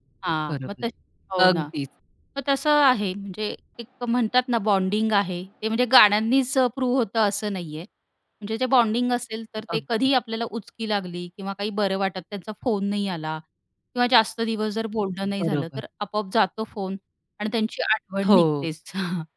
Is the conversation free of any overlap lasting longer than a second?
Yes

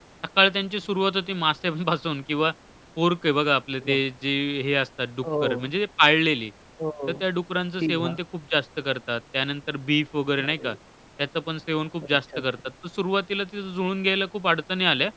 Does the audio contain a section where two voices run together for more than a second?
No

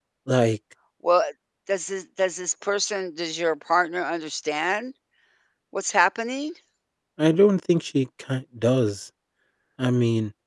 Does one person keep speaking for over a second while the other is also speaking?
No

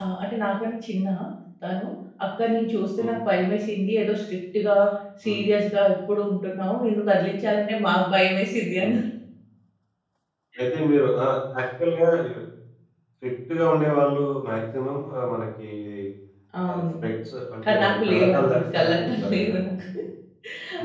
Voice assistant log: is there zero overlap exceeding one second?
No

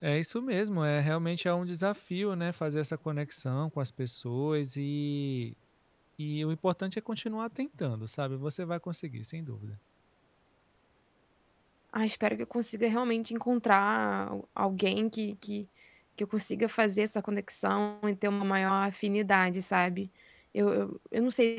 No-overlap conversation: Yes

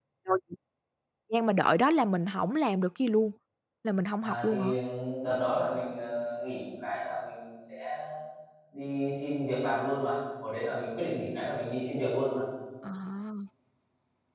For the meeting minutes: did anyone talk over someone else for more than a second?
No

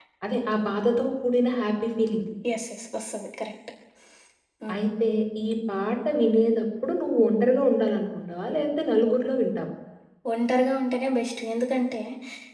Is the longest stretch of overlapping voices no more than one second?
Yes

